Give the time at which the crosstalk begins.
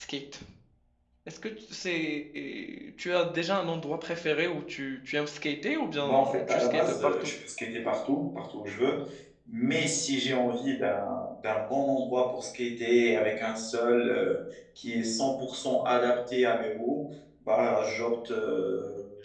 6 s

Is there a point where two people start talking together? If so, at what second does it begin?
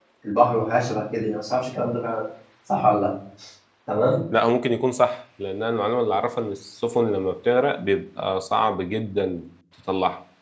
none

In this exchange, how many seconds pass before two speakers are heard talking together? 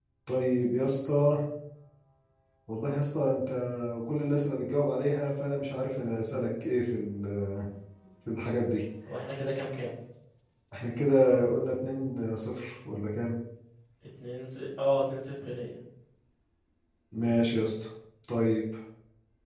none

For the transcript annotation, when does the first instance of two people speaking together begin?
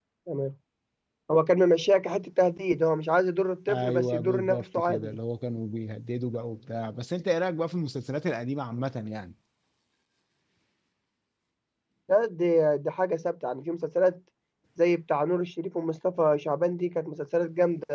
4 s

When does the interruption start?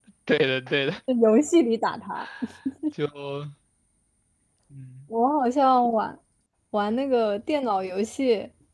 none

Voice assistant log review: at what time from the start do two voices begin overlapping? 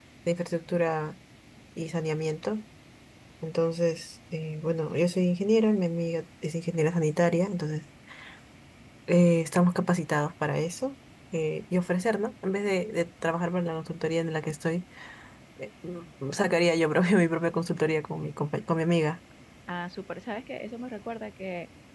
none

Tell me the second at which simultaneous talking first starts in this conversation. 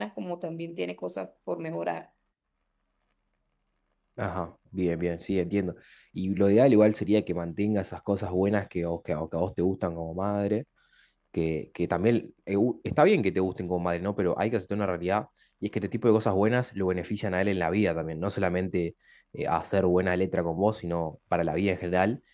none

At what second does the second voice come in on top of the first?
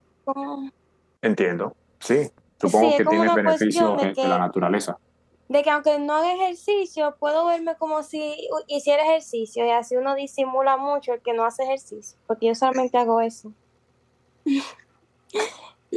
3 s

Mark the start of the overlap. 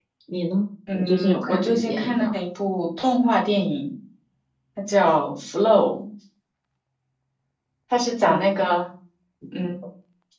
1 s

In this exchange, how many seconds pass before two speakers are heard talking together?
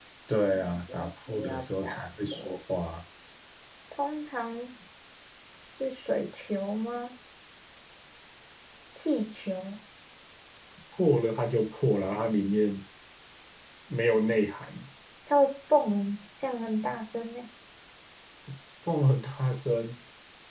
1 s

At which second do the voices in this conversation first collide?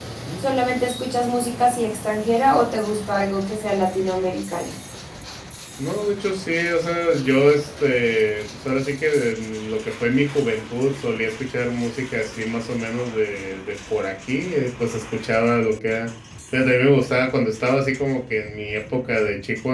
none

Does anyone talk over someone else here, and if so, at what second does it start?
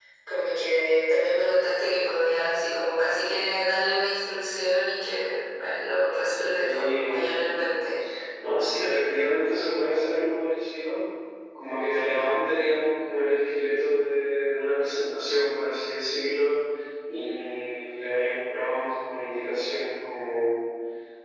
7 s

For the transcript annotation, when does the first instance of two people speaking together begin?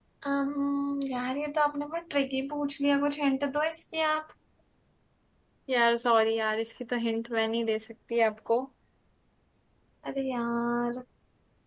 none

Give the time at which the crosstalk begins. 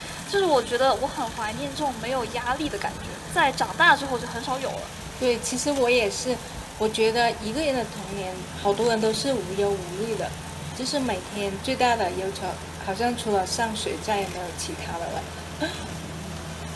none

